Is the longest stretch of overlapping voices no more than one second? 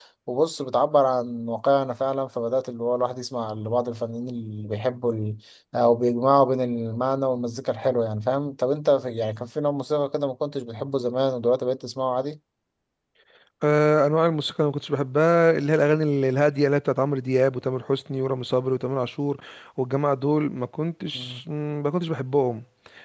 Yes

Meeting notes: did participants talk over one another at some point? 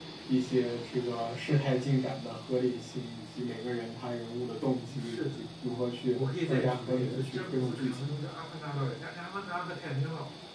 Yes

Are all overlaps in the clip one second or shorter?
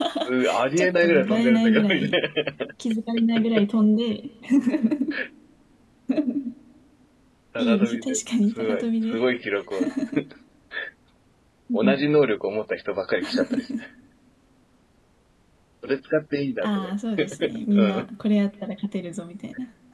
No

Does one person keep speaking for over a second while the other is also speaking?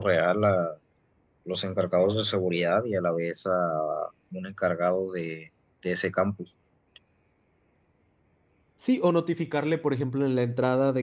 No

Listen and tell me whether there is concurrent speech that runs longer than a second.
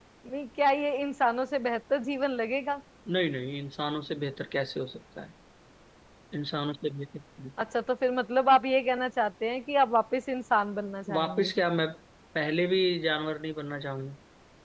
No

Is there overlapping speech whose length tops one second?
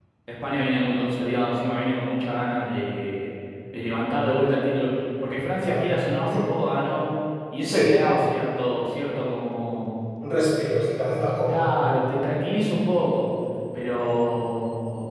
No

